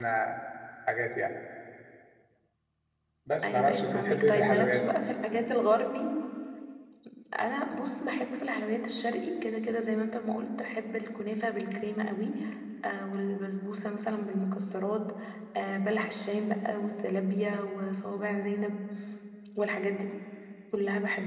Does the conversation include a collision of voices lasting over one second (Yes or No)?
Yes